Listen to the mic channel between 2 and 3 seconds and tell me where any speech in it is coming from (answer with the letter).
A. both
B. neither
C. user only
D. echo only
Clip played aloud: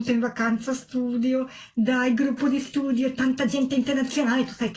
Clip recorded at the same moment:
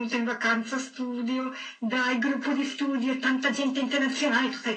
D